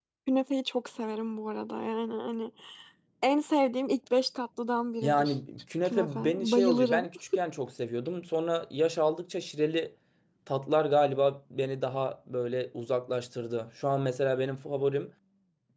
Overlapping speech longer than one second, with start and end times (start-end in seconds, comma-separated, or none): 5.8-7.0